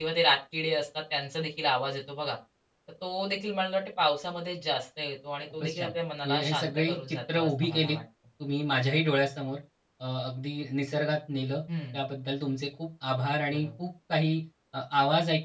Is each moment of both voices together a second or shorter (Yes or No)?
No